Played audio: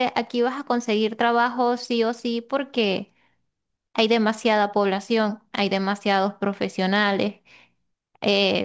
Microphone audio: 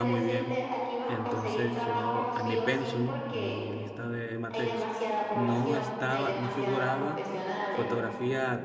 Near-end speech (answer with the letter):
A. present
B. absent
A